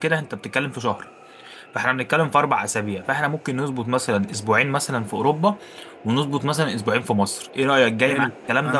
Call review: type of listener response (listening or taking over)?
taking over